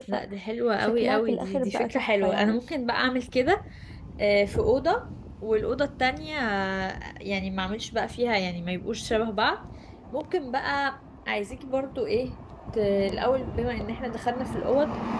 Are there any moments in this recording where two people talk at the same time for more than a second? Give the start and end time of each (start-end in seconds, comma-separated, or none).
0.8-2.6